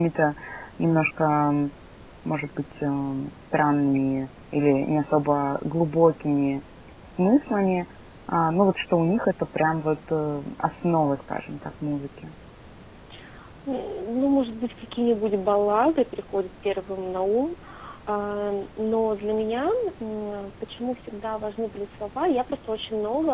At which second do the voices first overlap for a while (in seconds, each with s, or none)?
none